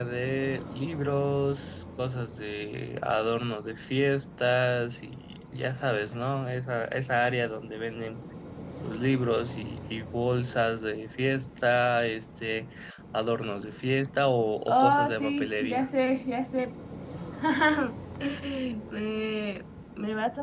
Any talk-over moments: Yes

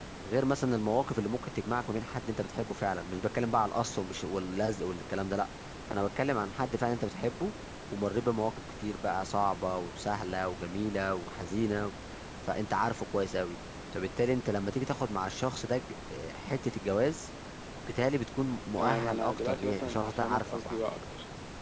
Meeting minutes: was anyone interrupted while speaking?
Yes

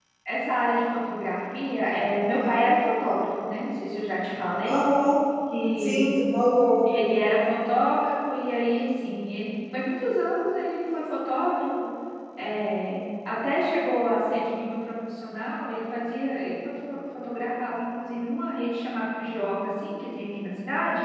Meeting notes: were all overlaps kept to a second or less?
Yes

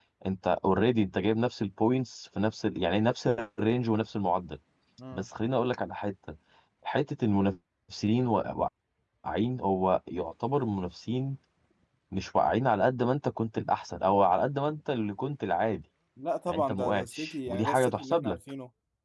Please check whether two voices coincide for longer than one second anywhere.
Yes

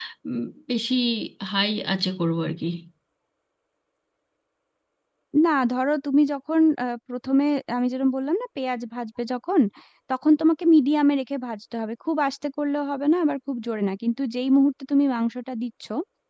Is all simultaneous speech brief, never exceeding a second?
Yes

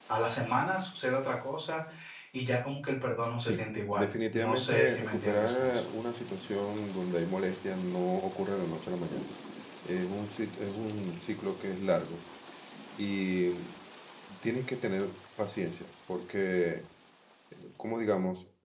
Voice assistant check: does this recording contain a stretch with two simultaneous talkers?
Yes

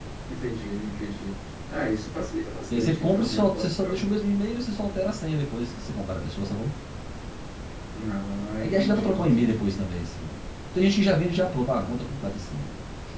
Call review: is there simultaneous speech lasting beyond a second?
Yes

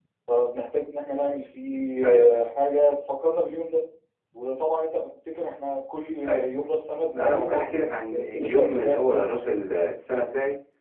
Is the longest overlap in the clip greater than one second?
Yes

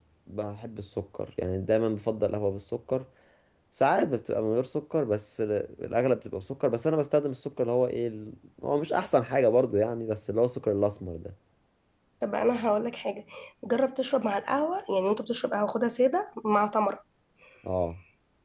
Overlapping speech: No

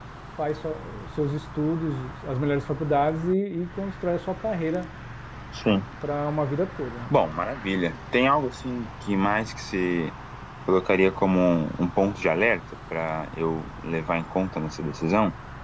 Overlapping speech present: No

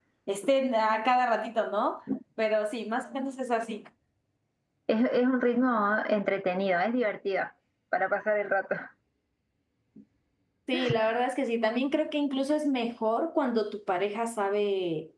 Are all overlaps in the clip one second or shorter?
Yes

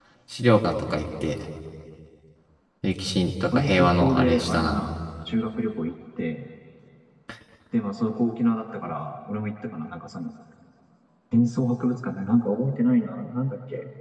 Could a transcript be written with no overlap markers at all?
No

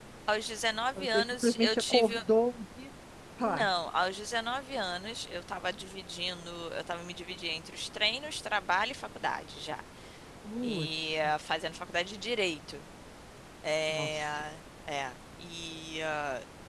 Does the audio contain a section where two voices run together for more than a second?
Yes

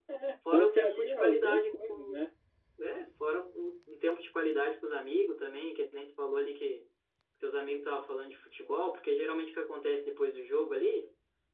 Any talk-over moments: Yes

